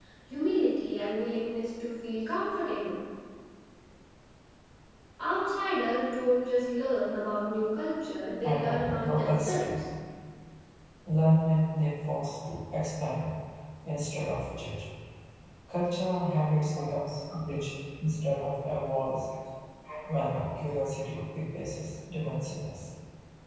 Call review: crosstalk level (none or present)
present